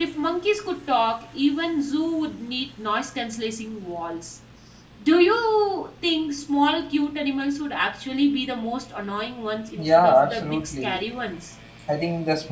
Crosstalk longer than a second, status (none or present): present